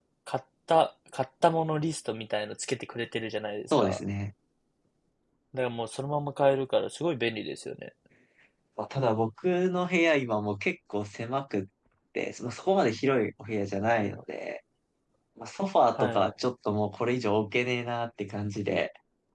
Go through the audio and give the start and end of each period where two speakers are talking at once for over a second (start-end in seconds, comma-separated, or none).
none